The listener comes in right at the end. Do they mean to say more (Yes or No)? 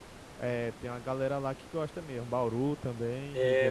Yes